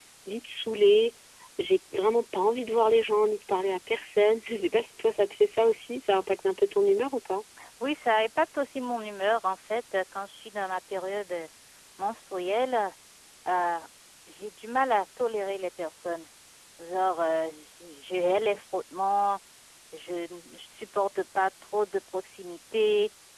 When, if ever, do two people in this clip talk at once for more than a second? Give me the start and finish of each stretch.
none

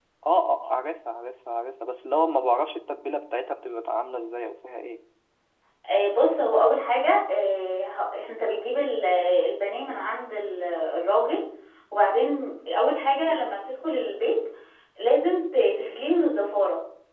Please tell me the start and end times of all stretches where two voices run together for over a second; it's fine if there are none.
none

